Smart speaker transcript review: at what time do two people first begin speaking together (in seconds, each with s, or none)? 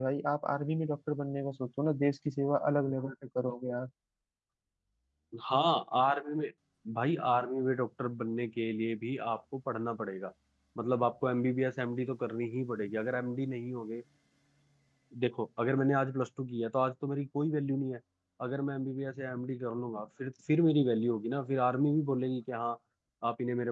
none